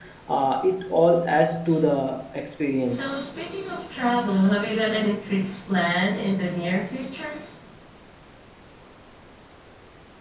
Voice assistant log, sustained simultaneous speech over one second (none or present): none